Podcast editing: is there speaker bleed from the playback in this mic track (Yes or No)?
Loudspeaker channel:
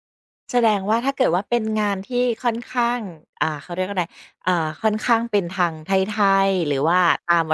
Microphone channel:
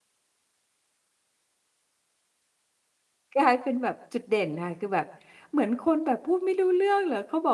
No